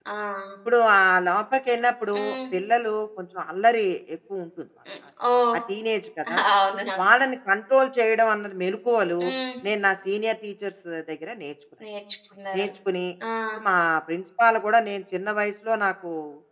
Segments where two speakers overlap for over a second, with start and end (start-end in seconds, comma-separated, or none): none